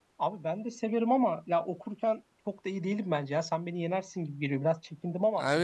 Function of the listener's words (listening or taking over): taking over